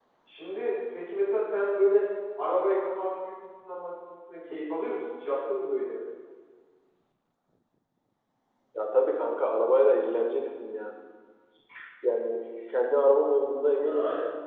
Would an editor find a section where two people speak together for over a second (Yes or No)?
No